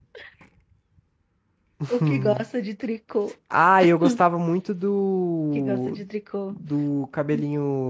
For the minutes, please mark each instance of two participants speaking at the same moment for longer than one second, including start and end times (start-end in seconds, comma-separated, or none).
none